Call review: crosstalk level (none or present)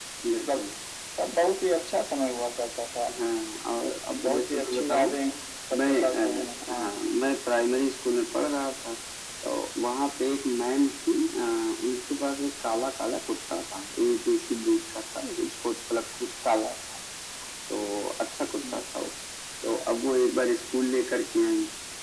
present